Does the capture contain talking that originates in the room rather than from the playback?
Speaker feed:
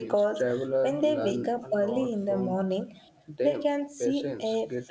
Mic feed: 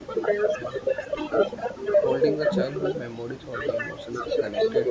Yes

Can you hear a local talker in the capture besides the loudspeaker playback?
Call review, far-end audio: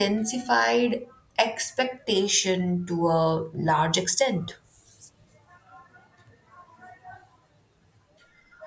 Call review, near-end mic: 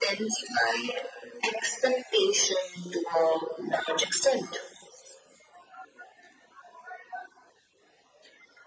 No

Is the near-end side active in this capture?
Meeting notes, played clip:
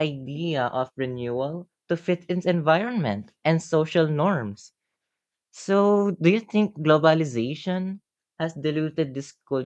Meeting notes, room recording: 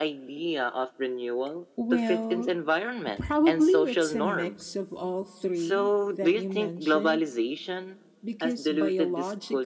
Yes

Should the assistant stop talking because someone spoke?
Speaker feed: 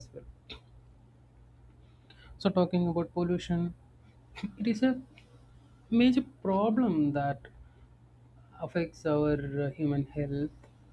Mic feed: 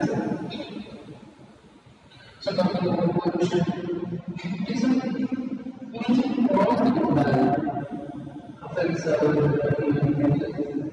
Yes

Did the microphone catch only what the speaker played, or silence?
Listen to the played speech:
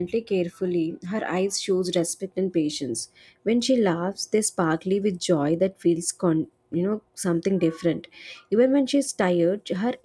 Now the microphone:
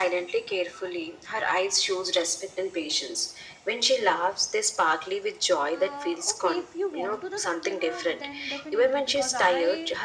No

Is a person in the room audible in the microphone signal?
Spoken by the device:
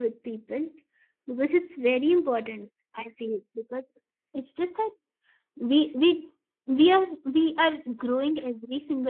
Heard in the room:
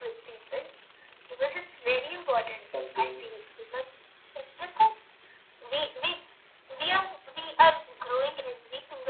Yes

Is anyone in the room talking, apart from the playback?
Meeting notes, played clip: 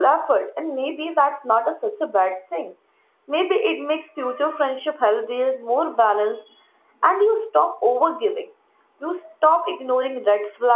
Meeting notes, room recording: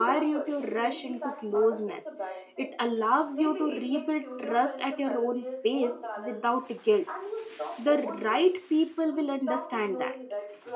Yes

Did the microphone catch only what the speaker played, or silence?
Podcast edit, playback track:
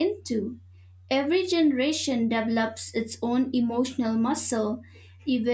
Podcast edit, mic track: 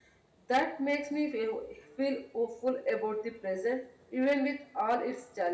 No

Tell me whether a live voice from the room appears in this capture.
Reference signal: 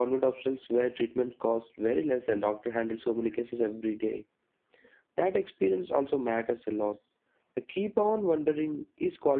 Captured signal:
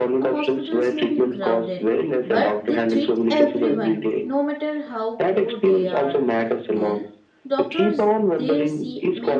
Yes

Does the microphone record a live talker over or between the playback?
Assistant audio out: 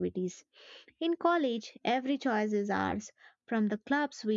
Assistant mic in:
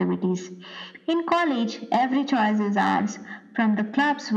No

